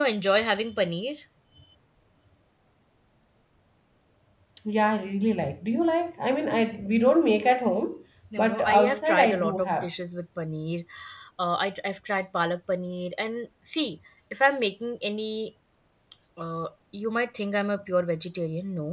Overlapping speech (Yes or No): Yes